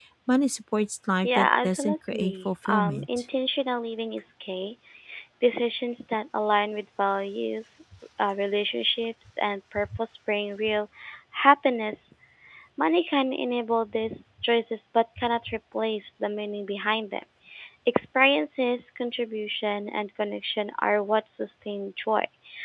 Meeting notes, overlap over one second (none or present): present